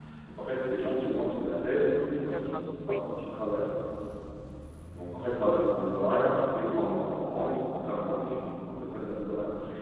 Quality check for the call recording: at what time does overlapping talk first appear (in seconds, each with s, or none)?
1.5 s